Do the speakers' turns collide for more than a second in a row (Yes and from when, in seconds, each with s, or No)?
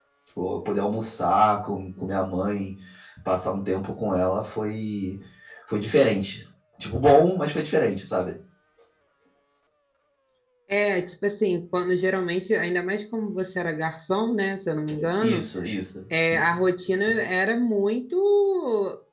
No